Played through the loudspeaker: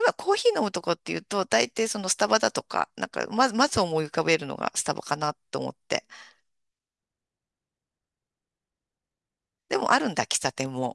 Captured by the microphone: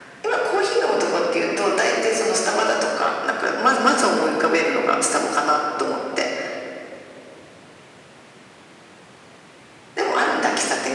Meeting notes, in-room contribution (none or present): none